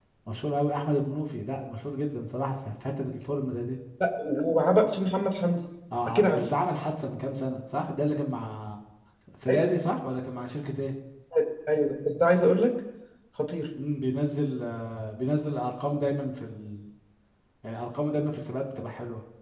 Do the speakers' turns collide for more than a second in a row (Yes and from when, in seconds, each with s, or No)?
No